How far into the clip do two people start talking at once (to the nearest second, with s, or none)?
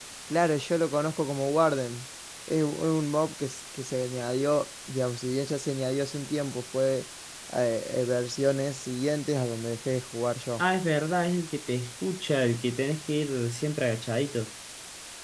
none